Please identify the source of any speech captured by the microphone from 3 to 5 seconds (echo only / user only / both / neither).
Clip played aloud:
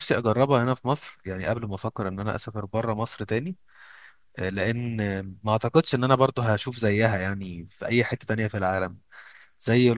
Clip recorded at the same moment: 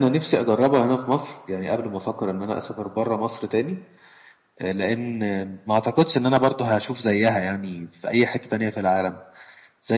echo only